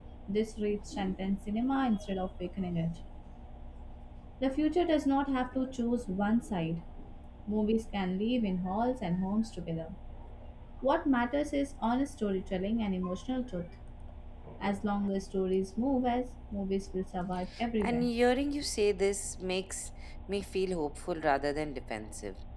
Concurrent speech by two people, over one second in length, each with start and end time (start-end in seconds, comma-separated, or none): none